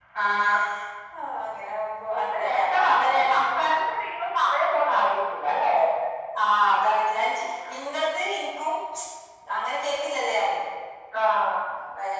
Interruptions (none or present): present